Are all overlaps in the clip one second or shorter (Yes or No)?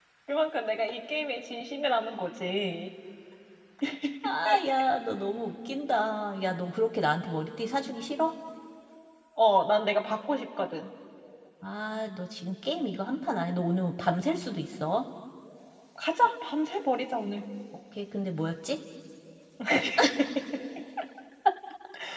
Yes